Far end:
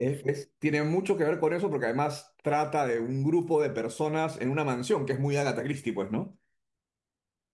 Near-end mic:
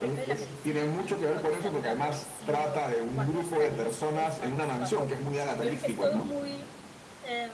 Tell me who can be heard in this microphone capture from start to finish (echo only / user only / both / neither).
both